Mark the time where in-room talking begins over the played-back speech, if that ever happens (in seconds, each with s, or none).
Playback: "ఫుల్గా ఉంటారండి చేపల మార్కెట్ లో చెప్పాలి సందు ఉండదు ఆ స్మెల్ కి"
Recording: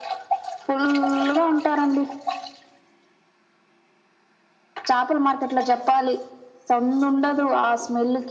none